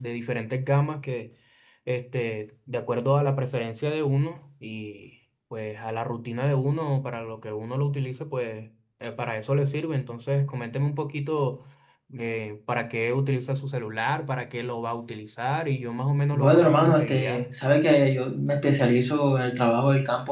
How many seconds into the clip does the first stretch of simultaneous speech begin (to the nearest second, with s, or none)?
16 s